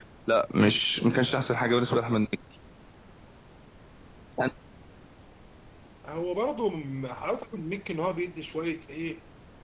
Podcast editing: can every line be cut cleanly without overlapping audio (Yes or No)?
Yes